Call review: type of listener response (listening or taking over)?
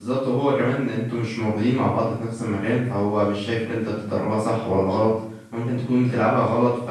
listening